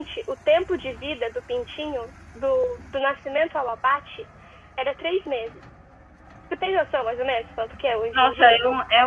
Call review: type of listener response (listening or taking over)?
taking over